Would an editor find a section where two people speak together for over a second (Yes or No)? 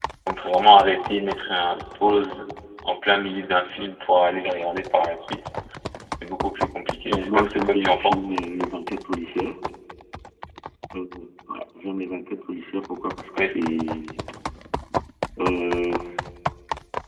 Yes